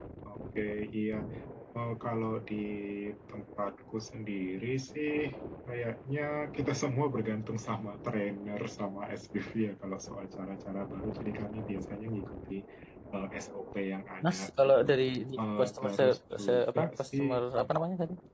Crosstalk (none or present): present